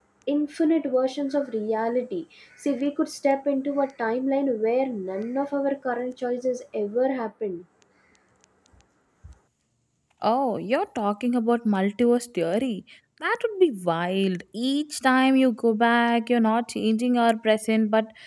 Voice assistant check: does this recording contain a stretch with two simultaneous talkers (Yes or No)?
No